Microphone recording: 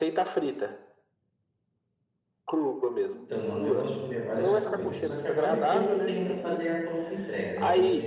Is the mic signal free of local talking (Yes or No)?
No